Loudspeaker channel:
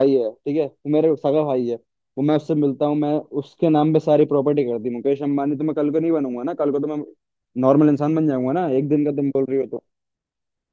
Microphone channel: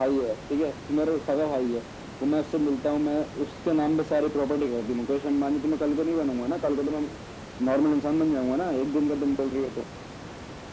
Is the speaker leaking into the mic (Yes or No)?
Yes